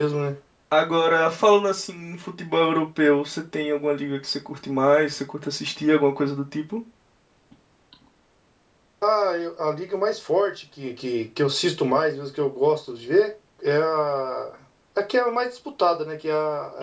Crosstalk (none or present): none